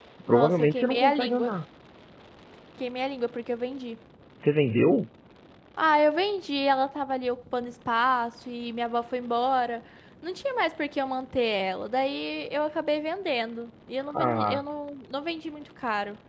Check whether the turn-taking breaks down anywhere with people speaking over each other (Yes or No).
Yes